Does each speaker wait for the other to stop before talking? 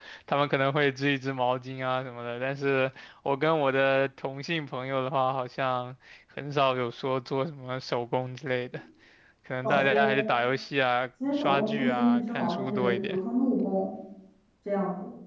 No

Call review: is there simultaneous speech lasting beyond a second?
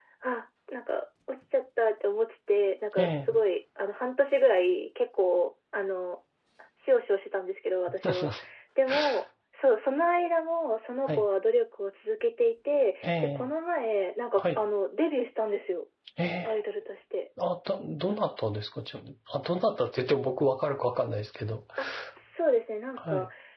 No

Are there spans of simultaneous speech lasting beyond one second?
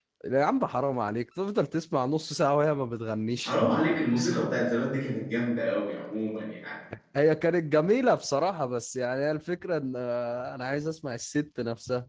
No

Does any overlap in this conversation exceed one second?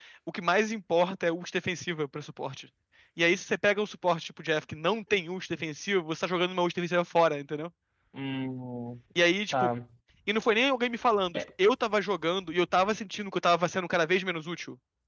No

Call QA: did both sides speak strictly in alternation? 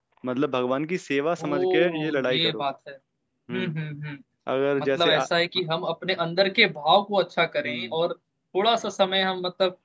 No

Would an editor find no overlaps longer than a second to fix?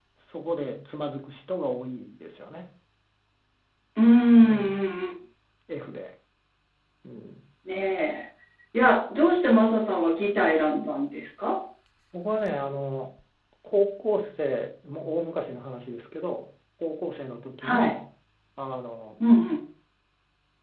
Yes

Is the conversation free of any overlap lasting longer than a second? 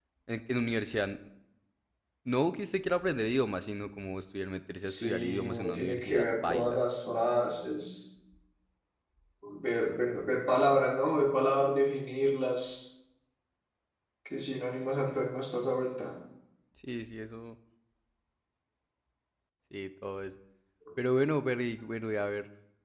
No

